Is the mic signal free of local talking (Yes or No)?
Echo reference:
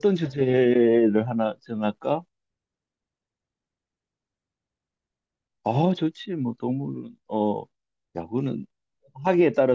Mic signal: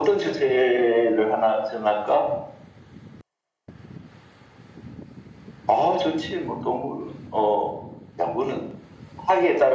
Yes